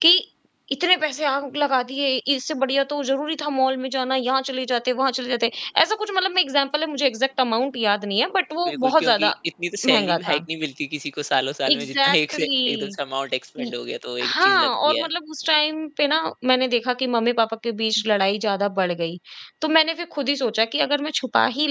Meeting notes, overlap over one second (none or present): present